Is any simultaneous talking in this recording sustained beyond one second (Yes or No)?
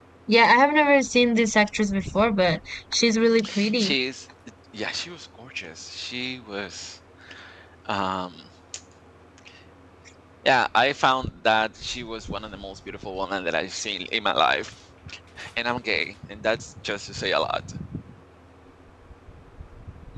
No